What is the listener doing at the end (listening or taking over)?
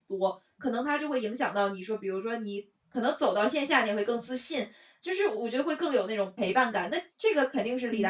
taking over